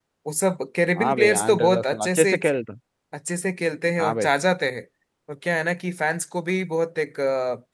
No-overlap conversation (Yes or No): No